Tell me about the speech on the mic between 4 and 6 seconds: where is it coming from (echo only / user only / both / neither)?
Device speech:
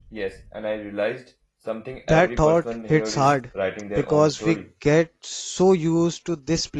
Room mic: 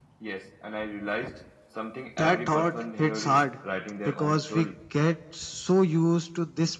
echo only